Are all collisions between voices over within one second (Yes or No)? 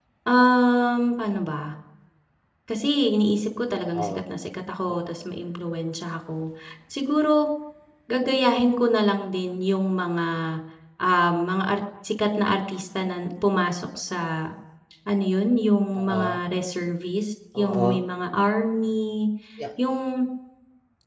Yes